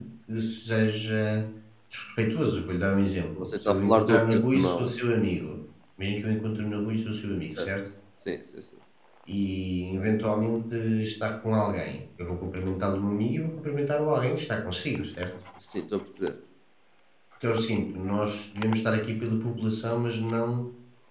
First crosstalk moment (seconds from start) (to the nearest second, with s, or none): 3 s